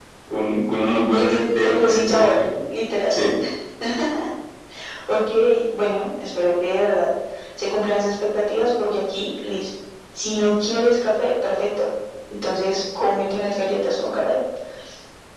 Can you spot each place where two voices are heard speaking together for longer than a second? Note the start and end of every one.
1.2-2.4

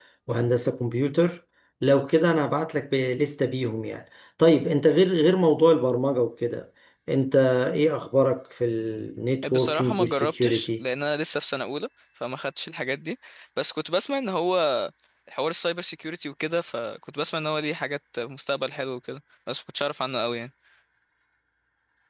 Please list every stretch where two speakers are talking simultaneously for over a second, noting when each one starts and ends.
9.4-10.8

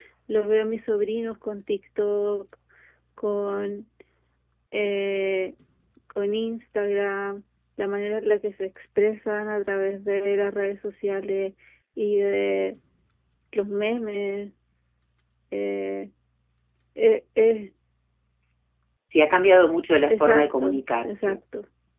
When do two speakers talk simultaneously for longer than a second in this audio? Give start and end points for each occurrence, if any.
20.1-21.4

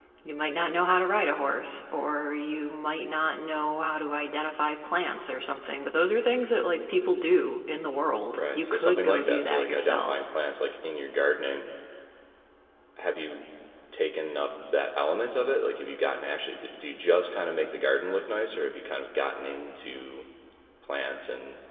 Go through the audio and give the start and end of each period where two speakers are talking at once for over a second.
8.3-10.3

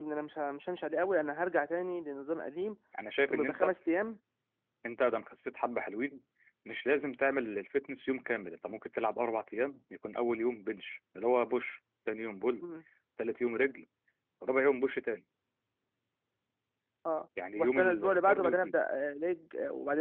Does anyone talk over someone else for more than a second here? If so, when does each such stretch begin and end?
17.6-18.8

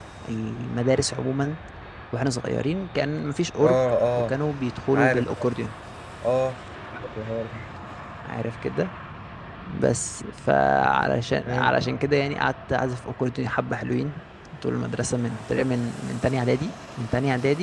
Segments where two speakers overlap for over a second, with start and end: none

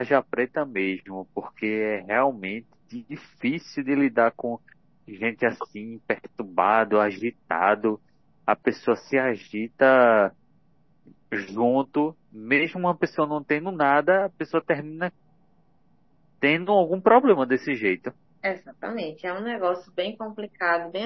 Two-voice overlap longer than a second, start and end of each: none

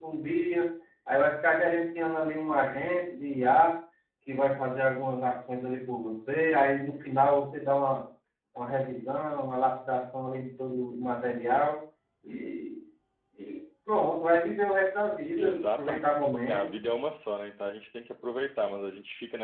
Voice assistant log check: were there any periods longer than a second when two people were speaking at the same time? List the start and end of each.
15.4-16.6

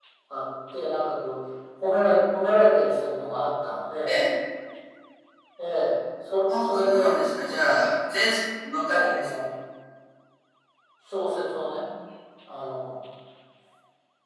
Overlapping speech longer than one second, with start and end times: 6.5-7.9

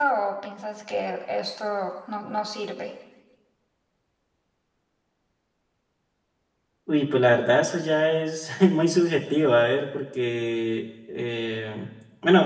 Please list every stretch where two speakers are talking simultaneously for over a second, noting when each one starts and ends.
none

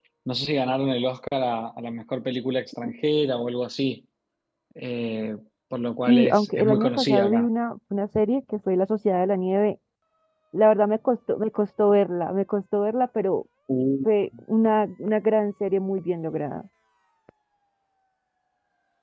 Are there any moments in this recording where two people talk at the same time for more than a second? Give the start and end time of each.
6.1-7.5

